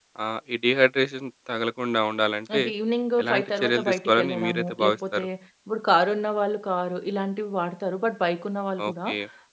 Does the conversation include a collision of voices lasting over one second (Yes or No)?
Yes